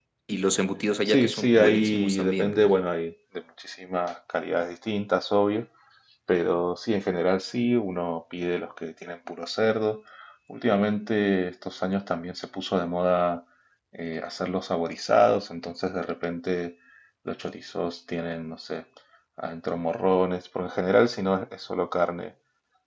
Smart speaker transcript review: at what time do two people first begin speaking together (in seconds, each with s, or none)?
1.0 s